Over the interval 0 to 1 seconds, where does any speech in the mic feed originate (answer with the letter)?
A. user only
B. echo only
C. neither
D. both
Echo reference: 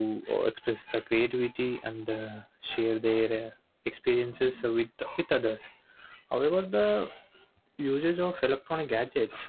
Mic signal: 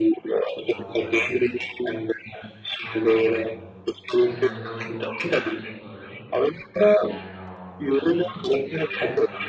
D